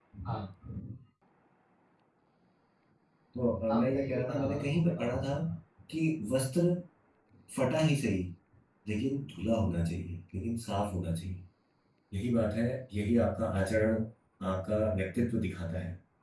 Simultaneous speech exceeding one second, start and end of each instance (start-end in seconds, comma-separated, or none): 3.8-5.3